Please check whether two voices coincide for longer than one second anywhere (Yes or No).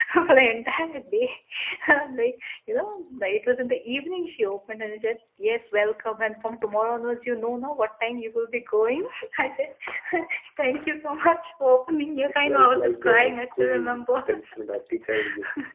Yes